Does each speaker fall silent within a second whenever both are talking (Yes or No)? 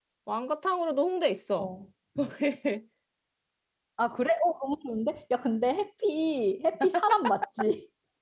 Yes